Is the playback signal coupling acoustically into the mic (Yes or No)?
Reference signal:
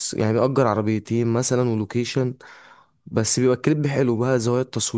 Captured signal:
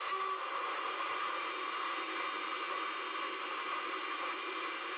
No